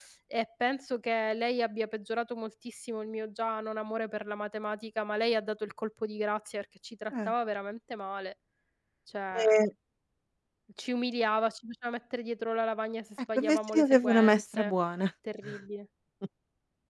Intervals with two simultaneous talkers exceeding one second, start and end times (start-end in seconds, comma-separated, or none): 13.4-14.7